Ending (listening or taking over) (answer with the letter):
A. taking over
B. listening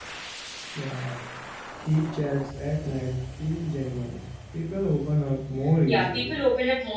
A